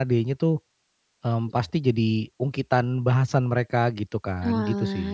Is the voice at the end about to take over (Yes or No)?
Yes